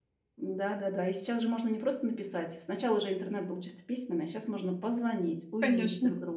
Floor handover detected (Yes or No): Yes